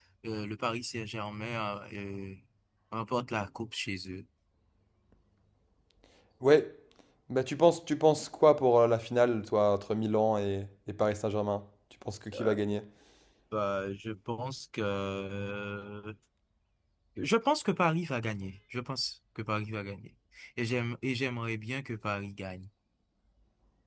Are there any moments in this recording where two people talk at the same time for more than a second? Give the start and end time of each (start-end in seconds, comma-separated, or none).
none